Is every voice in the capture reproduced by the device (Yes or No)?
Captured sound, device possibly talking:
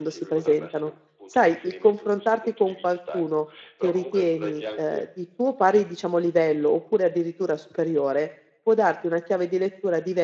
No